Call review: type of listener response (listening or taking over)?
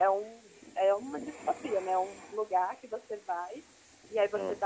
listening